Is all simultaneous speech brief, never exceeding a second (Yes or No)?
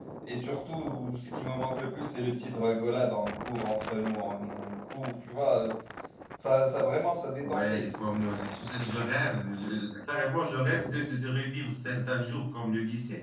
Yes